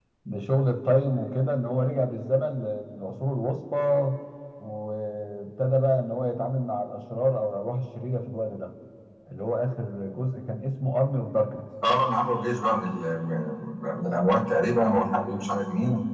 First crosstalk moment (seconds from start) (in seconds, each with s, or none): none